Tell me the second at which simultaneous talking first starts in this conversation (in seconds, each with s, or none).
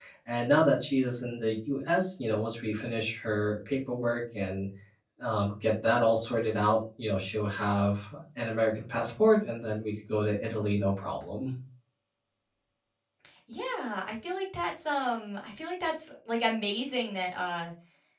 none